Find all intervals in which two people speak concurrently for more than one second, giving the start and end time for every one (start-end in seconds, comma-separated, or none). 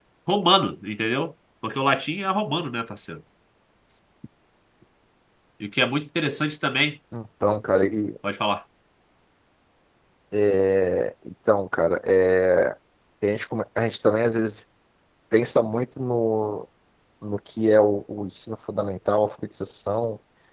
none